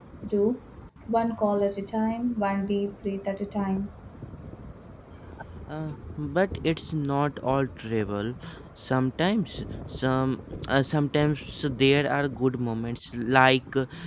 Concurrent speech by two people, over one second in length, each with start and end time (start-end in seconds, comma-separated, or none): none